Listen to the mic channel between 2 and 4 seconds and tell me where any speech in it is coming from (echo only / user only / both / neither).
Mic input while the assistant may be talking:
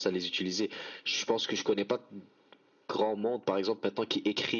echo only